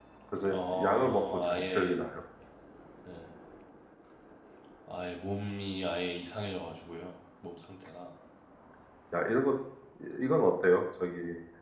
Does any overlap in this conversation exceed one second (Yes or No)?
Yes